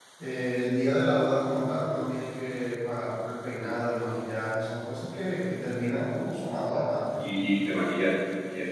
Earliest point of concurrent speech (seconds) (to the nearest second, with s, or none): none